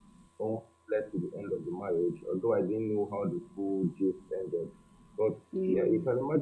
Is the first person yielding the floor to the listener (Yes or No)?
No